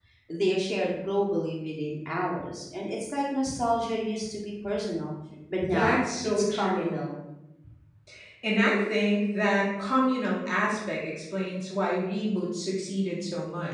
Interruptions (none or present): present